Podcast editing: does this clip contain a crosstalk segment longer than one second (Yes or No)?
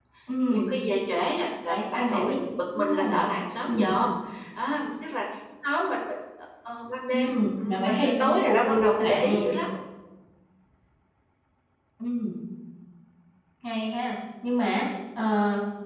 Yes